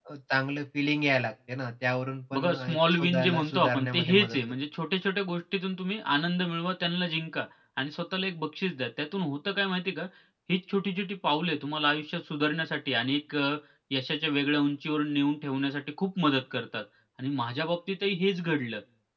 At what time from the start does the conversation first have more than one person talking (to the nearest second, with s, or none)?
2 s